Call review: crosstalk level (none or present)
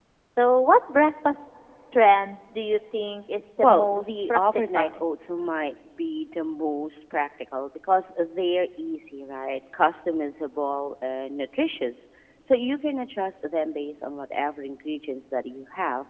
present